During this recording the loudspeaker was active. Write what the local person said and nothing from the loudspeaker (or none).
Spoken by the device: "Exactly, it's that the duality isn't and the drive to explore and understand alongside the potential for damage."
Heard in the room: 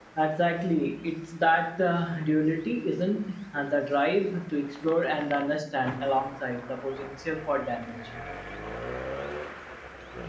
none